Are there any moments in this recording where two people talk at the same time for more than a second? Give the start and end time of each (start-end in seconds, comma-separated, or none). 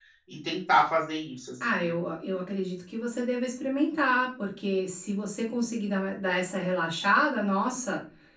none